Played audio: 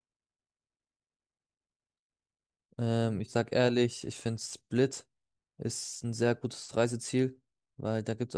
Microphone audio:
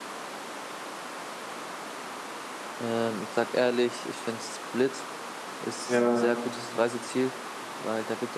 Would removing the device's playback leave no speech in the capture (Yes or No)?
No